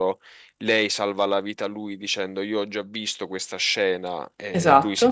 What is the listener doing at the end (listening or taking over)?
listening